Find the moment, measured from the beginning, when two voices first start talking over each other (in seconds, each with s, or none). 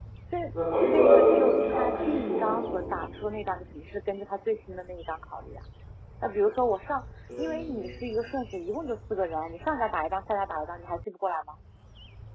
0.9 s